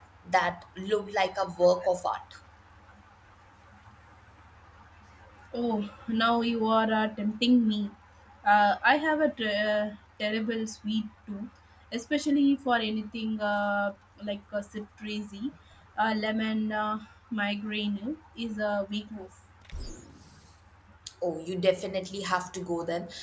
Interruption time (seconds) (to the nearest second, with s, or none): none